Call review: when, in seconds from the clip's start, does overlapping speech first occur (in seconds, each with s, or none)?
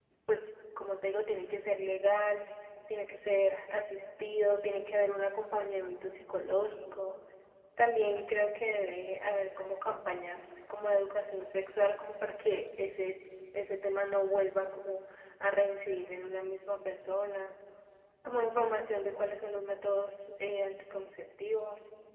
none